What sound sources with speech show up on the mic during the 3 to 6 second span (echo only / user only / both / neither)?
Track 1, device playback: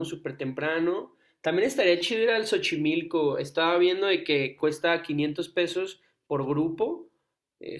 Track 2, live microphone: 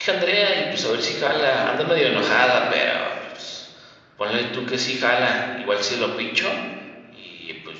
user only